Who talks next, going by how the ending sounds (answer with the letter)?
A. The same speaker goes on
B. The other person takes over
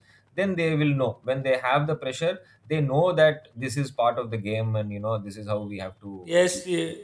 B